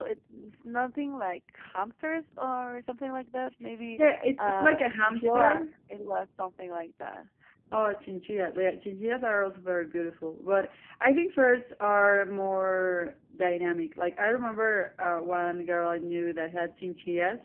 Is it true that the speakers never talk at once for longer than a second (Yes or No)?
No